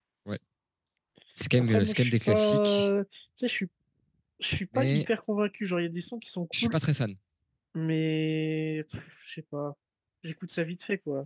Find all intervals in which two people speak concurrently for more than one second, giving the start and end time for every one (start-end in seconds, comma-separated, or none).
1.6-2.9